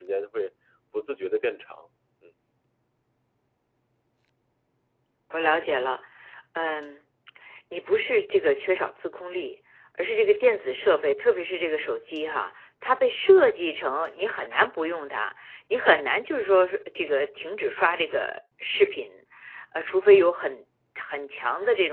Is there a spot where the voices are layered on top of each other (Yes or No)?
No